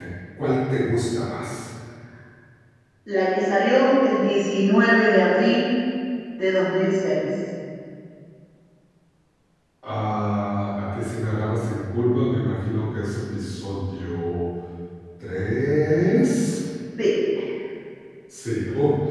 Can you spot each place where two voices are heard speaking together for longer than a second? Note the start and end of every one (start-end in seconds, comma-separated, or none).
none